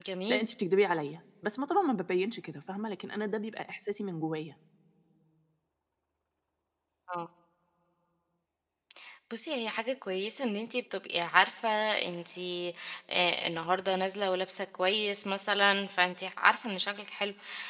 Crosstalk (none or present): none